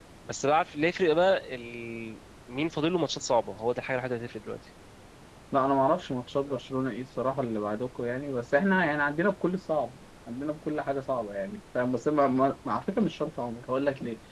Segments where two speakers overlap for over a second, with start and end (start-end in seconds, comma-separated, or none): none